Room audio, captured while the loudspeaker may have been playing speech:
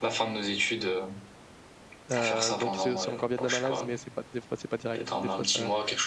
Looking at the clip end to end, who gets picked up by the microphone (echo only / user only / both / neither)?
both